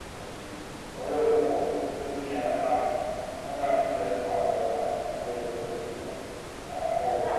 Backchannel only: Yes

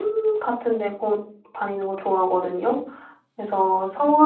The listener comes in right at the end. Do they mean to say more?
No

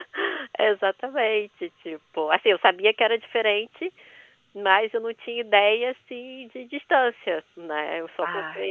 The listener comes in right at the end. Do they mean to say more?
No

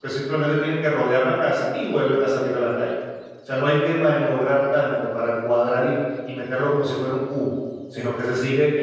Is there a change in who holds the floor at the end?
No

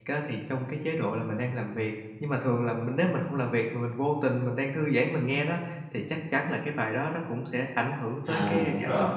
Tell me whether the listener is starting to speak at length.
Yes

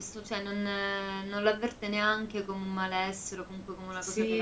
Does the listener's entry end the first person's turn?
Yes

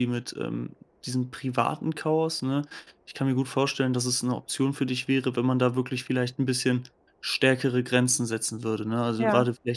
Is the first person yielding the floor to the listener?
No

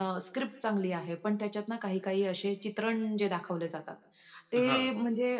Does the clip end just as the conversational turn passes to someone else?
No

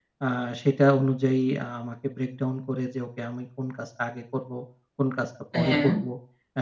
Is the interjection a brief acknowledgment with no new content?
Yes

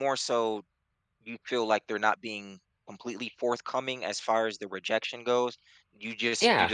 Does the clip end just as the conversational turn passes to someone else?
No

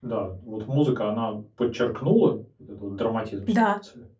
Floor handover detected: Yes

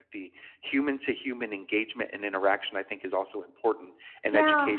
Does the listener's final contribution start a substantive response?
No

